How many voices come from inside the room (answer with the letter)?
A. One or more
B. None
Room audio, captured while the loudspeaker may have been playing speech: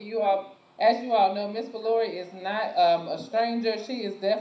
A